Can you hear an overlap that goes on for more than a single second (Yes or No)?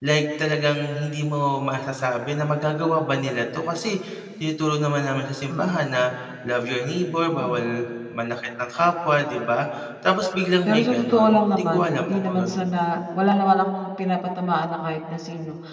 Yes